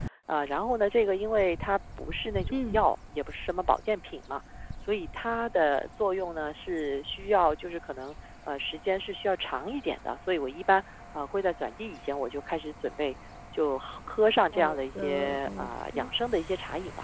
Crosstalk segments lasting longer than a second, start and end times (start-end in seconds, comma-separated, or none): 14.5-16.1